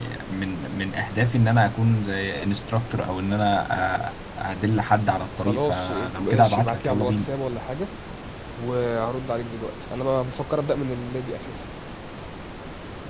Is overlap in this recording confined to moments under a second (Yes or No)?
No